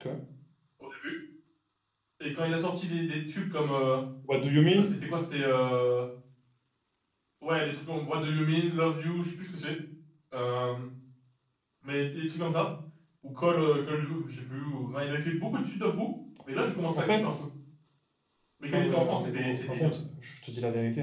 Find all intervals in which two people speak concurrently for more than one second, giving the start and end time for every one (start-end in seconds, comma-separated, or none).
18.7-20.0